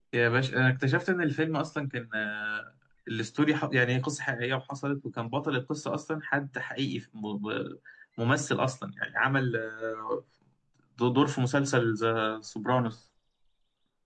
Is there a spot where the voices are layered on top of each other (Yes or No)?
No